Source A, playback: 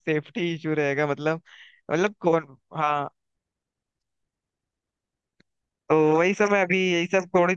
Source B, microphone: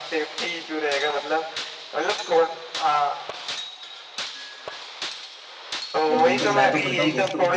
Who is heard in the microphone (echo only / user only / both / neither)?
both